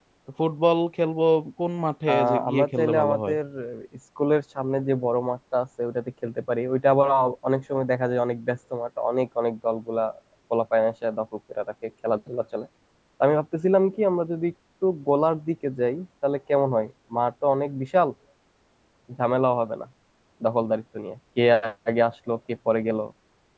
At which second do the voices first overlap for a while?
2 s

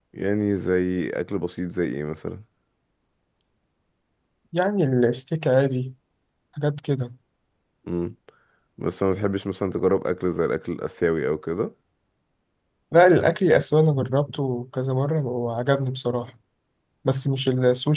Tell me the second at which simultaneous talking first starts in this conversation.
none

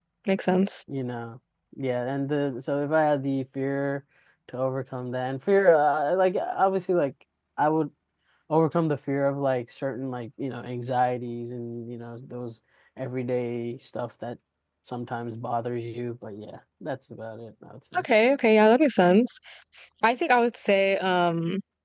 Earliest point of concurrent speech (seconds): none

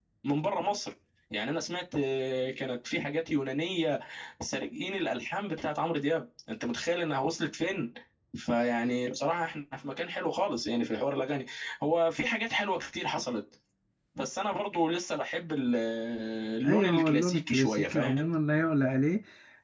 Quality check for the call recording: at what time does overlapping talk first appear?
17 s

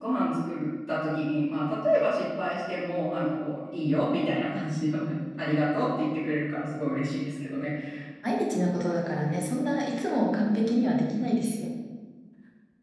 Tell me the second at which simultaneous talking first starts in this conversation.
none

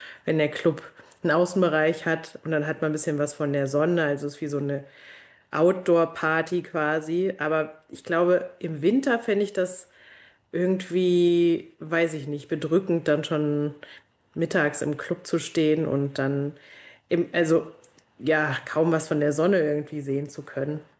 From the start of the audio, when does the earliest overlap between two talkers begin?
none

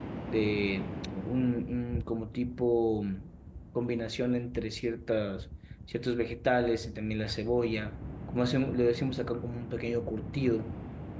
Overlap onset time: none

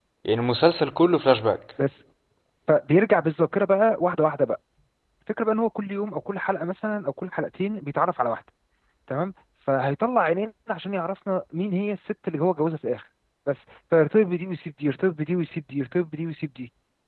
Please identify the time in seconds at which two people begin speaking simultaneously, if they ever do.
none

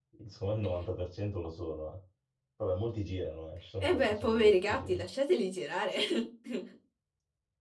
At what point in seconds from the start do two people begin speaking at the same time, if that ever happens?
4 s

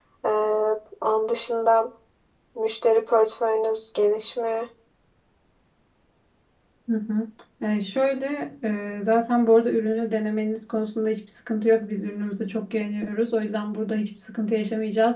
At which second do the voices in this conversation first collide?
none

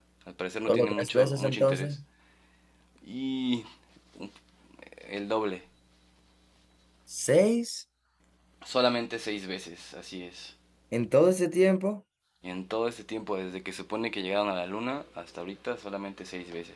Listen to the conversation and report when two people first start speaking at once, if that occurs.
1 s

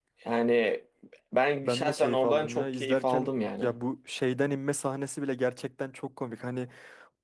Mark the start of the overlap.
2 s

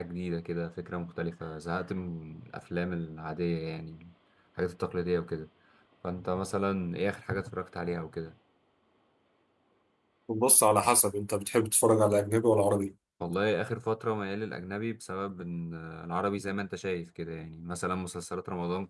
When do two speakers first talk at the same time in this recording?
none

